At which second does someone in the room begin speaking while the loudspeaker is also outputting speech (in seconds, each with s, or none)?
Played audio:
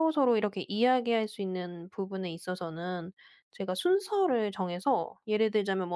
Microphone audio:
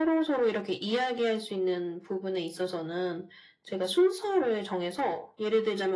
none